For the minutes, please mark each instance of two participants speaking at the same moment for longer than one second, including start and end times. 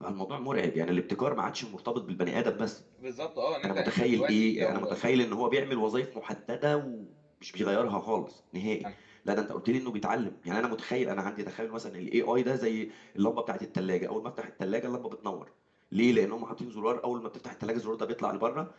3.6-4.9

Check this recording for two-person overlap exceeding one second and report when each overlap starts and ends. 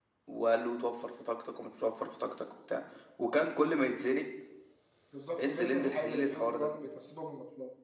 5.4-6.7

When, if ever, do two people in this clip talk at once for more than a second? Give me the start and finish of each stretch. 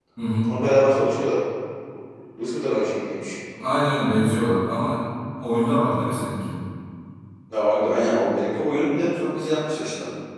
none

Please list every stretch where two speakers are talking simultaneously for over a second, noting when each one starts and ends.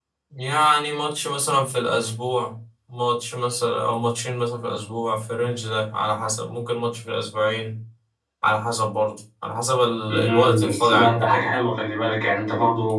10.1-11.5

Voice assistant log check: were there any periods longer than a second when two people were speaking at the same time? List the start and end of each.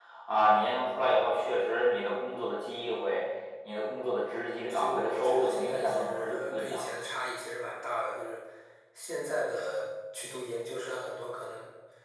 4.7-7.0

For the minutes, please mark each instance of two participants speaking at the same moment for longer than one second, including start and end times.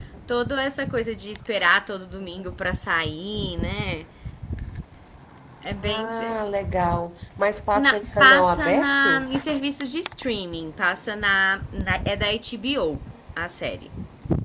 7.7-9.2

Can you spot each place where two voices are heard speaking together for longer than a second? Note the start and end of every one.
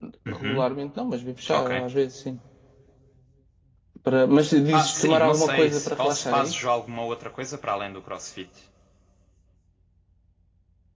4.7-6.5

